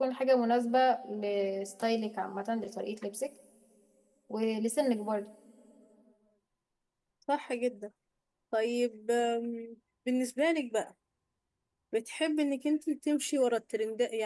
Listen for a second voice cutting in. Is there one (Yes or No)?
No